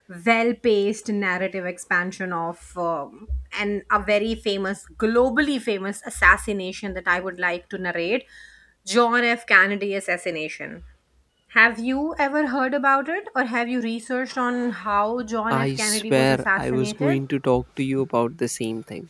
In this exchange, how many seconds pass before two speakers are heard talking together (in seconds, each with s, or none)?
15.5 s